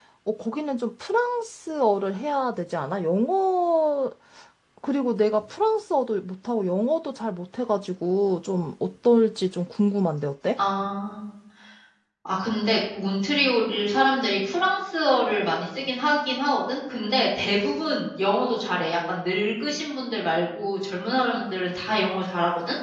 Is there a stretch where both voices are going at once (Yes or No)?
No